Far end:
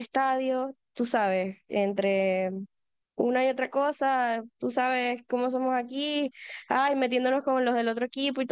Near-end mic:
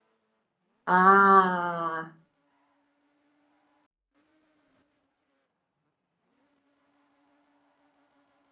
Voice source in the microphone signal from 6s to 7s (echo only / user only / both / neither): neither